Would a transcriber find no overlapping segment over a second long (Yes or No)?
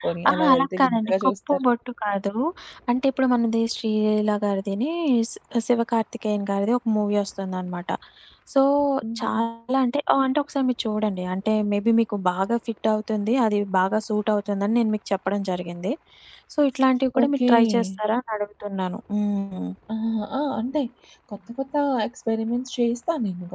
No